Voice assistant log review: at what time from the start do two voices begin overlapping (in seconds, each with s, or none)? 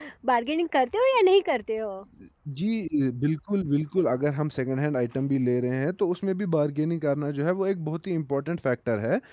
none